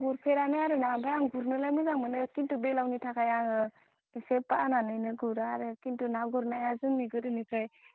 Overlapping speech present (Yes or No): No